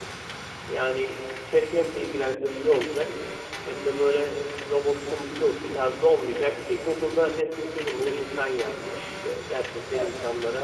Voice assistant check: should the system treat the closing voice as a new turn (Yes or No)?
No